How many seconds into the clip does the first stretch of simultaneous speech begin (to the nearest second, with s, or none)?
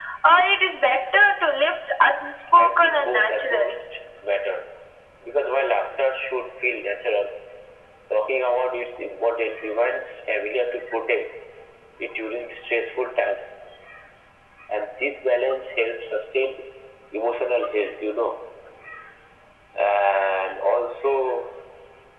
3 s